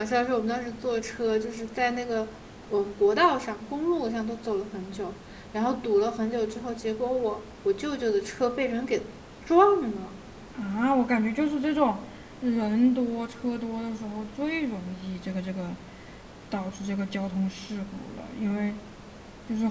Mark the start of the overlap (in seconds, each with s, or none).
none